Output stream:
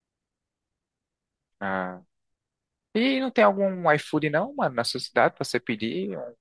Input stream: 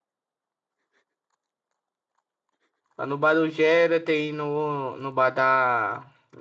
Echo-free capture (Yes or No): Yes